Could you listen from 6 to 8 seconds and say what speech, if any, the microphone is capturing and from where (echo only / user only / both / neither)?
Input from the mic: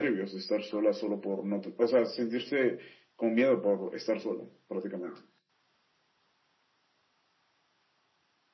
neither